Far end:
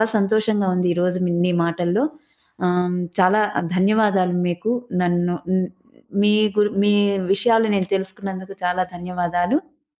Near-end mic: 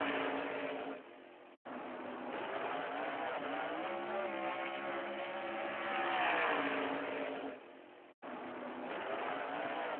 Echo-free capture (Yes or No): Yes